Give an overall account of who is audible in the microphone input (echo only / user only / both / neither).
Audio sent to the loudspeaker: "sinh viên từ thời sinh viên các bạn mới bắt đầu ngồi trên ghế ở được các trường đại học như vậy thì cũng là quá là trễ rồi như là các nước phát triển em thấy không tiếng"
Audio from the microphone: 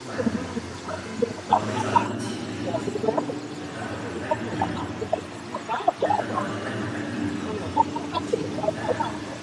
both